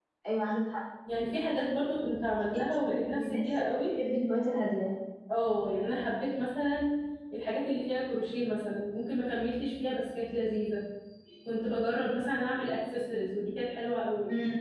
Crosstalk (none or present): present